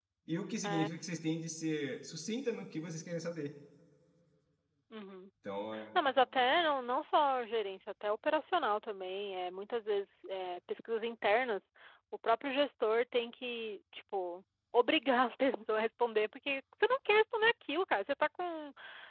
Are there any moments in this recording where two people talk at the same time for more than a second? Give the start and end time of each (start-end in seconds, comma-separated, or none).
none